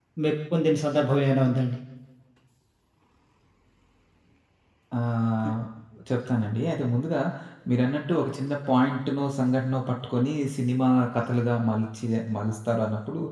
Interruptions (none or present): none